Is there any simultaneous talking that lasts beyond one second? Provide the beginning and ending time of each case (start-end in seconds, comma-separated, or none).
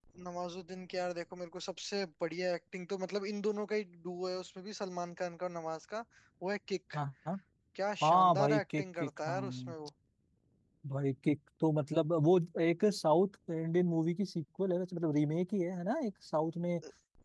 8.0-9.7